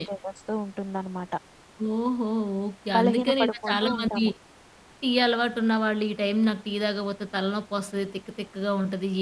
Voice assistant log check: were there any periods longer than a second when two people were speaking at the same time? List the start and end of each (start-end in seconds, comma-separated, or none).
3.0-4.2